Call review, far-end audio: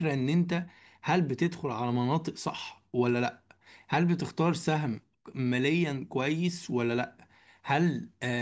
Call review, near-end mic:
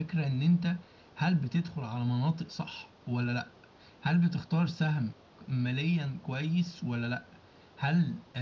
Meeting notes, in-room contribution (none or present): none